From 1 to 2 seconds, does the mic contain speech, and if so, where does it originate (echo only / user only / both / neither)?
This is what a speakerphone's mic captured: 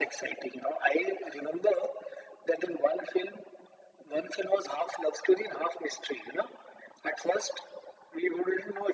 echo only